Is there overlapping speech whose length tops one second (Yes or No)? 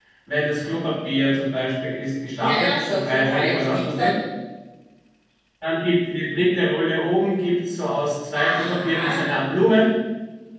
Yes